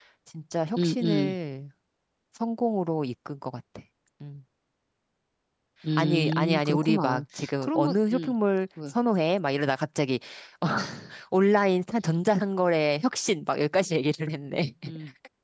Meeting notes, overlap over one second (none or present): present